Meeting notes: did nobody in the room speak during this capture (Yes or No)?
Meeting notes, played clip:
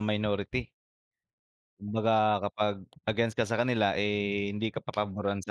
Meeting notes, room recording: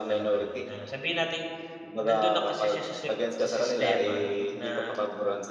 No